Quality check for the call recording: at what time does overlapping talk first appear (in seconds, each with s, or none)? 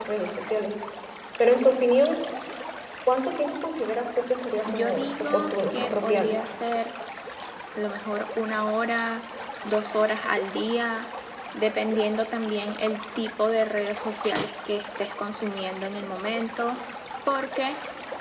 4.7 s